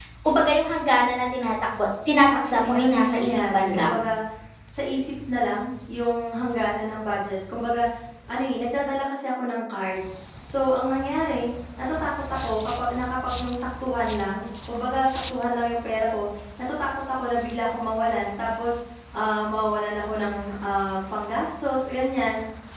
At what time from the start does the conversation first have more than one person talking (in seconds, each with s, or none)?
2.3 s